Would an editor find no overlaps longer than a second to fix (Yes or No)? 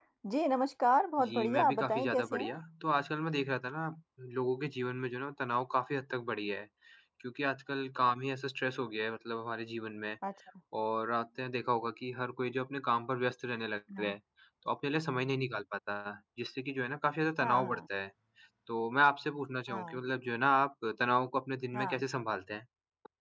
No